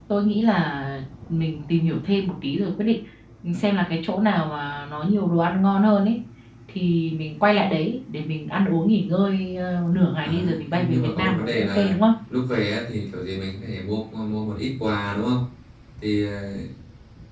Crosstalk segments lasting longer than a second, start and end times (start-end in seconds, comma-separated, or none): 10.2-12.0